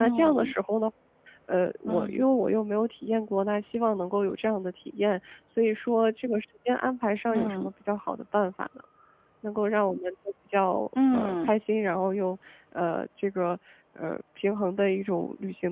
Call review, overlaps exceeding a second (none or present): none